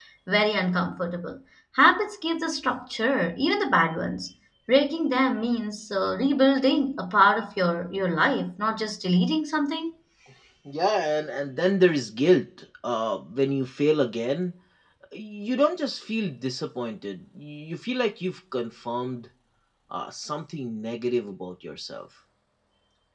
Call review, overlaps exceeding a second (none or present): none